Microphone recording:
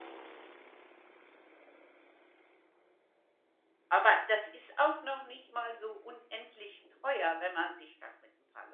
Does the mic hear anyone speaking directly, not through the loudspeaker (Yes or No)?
Yes